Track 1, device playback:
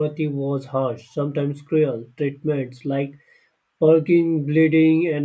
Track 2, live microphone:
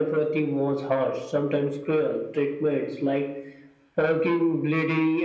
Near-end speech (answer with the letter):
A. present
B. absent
B